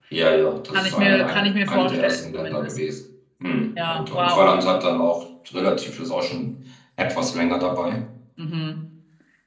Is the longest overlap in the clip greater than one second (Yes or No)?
Yes